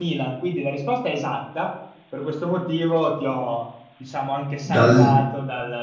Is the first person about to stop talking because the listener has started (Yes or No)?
No